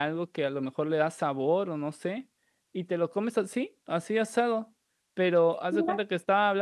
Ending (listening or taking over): listening